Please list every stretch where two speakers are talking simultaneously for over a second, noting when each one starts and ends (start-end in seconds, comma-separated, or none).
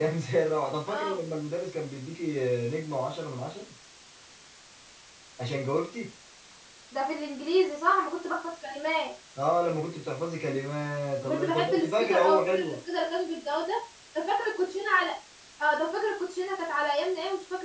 11.2-12.8